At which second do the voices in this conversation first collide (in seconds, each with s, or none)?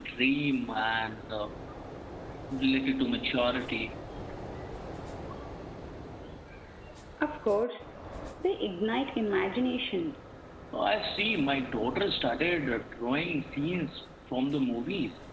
none